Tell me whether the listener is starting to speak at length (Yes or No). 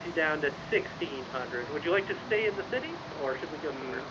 Yes